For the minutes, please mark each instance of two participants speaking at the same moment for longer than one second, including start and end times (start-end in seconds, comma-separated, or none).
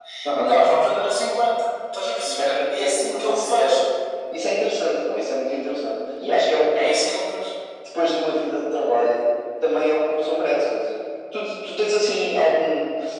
2.2-3.8